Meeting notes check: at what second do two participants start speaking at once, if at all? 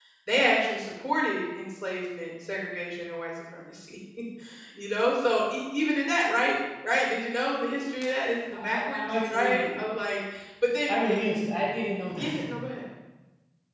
8.5 s

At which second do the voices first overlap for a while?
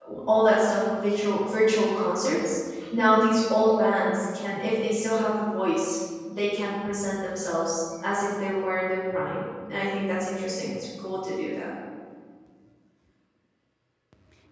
none

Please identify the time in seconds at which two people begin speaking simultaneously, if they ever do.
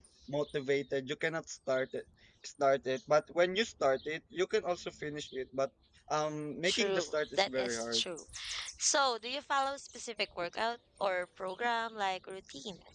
6.6 s

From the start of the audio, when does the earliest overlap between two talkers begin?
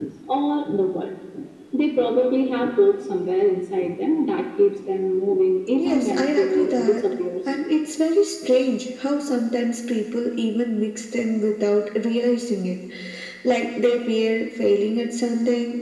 5.8 s

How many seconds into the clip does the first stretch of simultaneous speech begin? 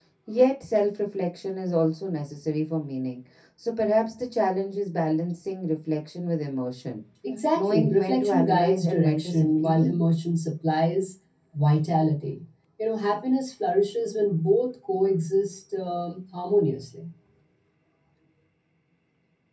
7.5 s

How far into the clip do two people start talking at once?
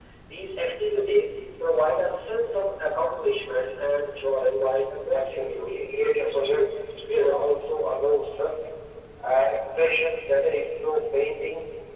5.1 s

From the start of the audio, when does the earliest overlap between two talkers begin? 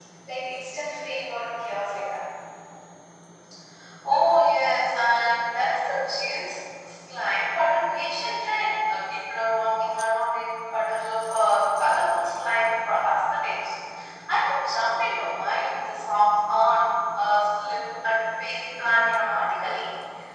none

